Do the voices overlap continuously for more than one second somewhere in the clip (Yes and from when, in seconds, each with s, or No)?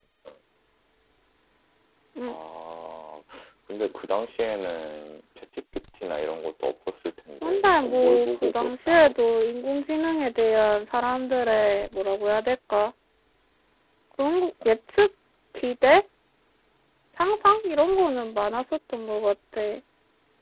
Yes, from 7.4 s